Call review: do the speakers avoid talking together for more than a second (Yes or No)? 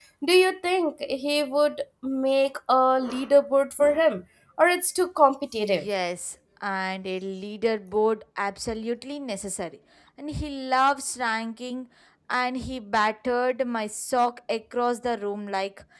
Yes